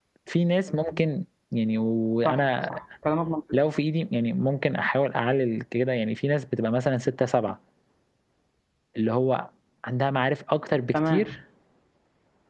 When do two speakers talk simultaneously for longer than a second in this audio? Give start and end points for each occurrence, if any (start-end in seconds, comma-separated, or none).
none